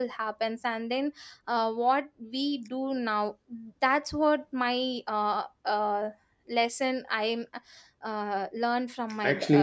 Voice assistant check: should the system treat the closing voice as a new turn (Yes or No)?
Yes